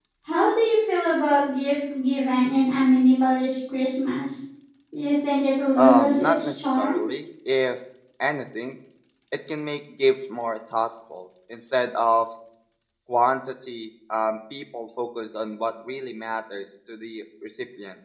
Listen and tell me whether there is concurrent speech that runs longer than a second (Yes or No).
Yes